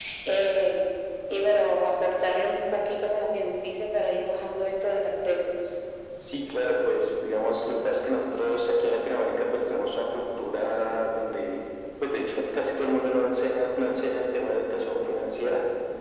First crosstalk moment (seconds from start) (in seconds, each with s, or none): none